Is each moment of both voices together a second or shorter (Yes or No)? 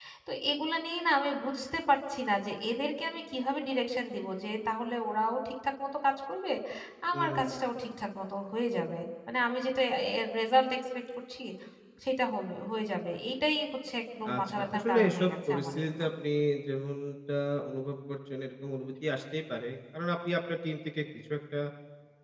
No